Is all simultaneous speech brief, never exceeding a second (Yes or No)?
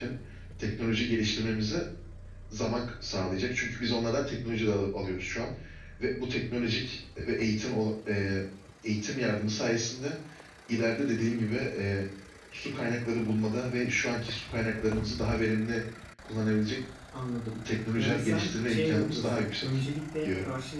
No